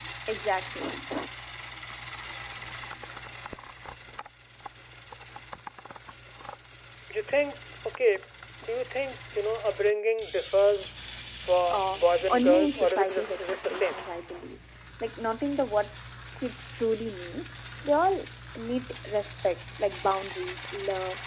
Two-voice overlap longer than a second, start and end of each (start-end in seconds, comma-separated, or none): 11.7-14.0